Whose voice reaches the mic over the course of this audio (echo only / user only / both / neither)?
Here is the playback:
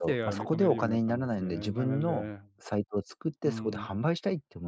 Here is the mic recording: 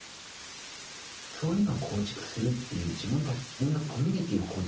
user only